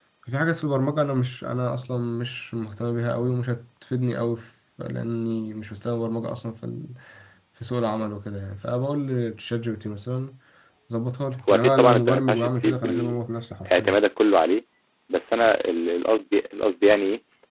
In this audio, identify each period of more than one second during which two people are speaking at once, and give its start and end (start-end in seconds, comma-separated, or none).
11.5-13.2